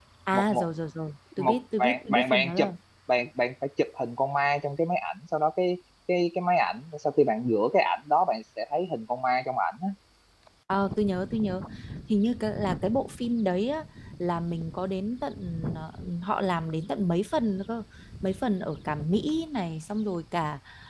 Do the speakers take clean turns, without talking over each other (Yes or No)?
No